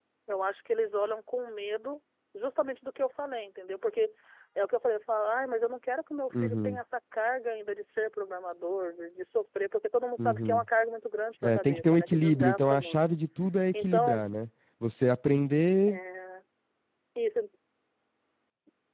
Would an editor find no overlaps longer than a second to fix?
No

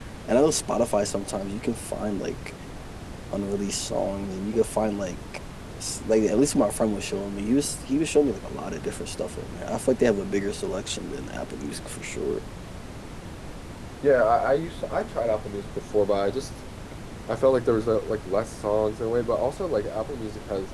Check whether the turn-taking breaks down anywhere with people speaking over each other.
No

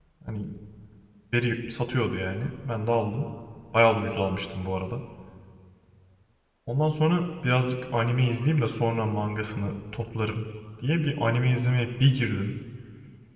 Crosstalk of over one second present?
No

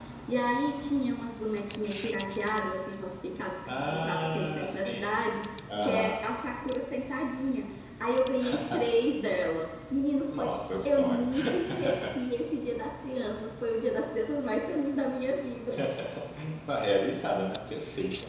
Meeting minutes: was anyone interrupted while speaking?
Yes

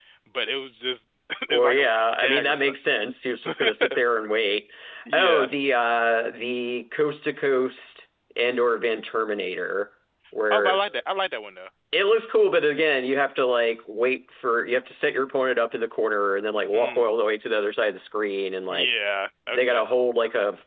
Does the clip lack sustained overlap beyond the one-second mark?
No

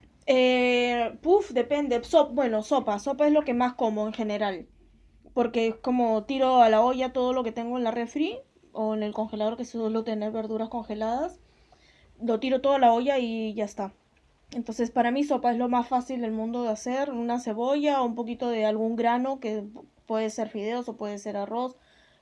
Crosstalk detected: No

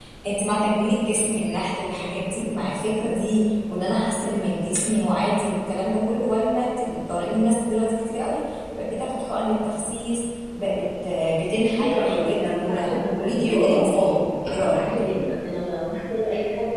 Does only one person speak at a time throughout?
No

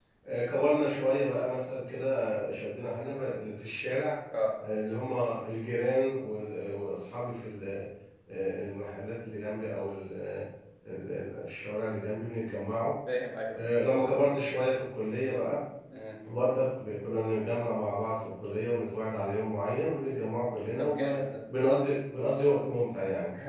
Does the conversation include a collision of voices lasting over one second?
No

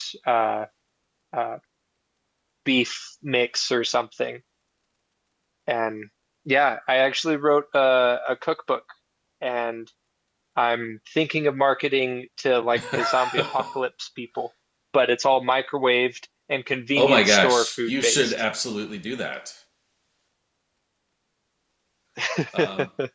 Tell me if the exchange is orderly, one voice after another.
No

